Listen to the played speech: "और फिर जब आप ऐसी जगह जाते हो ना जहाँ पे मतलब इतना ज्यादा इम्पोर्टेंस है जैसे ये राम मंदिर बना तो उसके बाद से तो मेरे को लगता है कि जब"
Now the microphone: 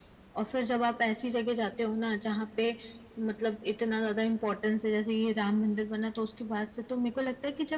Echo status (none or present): present